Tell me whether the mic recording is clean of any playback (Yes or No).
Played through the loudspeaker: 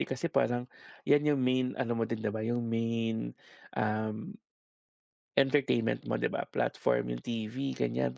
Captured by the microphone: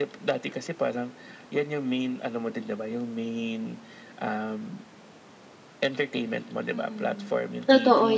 No